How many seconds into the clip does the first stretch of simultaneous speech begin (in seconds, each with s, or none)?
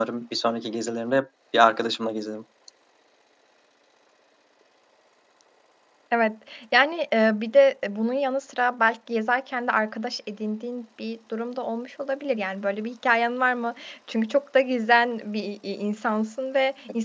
none